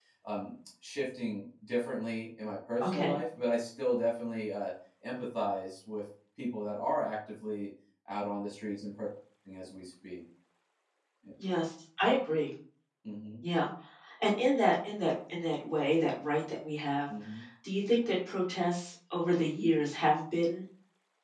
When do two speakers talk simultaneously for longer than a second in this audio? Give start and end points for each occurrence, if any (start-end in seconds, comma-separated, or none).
none